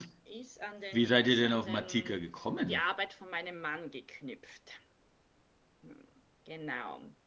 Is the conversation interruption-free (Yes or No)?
No